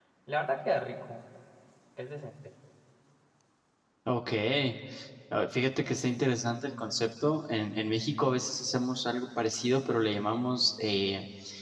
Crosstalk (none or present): none